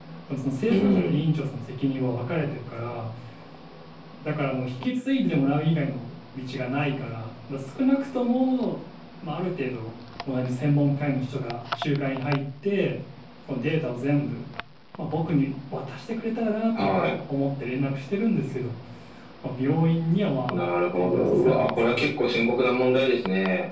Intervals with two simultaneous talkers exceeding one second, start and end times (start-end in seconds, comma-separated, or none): 20.5-22.1